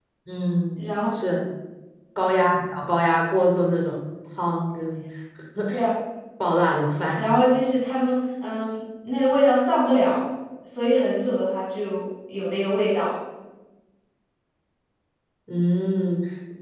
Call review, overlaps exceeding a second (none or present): none